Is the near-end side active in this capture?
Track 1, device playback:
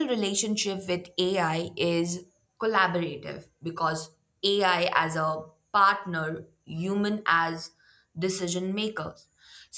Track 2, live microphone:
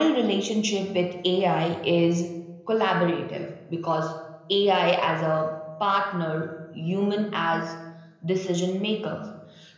No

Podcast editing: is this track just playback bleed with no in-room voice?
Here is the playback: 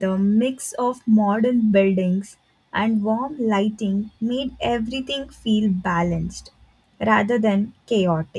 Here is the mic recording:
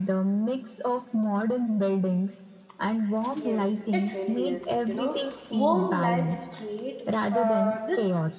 No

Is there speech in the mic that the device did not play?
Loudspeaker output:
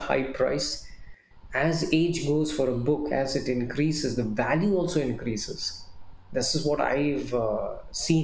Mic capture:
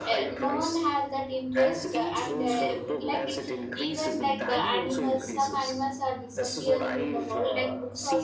Yes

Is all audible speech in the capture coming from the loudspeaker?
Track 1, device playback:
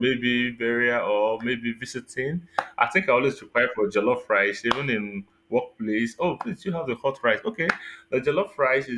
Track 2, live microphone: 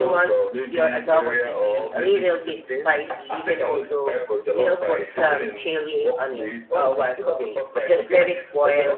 No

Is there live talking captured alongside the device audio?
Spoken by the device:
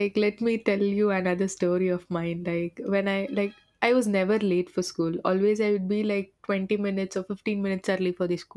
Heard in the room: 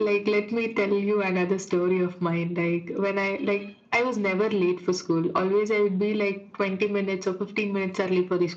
No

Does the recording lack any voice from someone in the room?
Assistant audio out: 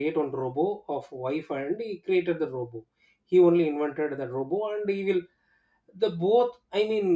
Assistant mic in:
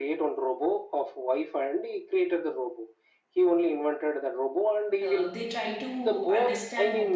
No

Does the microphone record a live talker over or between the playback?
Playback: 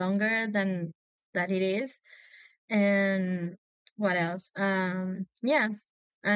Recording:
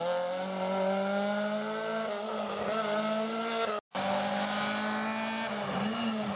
No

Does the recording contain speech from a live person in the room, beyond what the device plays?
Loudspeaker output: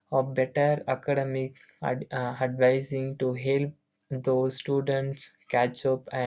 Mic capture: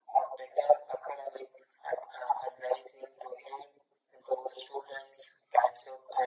No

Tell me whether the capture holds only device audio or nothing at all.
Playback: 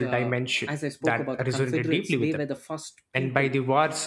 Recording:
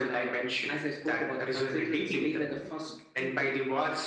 No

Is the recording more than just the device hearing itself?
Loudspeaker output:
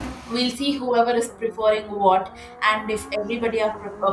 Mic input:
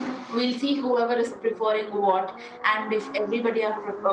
No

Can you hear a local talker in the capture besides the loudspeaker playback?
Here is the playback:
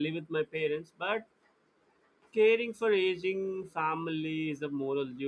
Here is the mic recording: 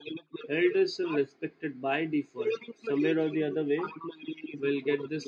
Yes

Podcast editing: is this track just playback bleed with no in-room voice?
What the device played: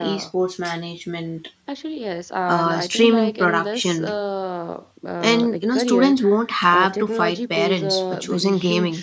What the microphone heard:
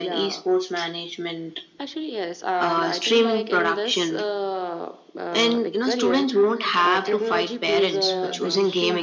No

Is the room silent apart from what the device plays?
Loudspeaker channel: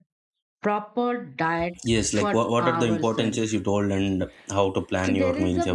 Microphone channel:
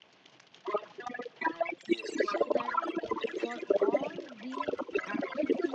No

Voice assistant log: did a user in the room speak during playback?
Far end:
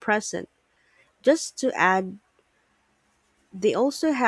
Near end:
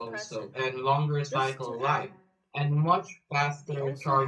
Yes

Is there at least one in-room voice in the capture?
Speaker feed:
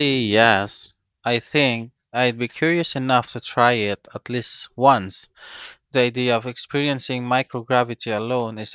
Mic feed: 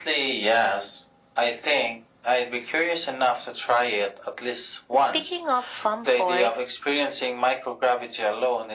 Yes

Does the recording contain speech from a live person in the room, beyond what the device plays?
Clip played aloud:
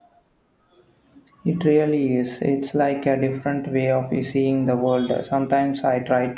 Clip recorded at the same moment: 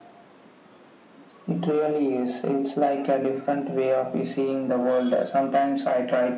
No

